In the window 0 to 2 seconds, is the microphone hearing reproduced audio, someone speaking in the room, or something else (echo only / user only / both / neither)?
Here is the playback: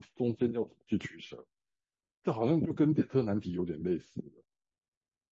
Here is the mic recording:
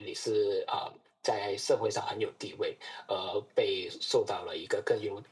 user only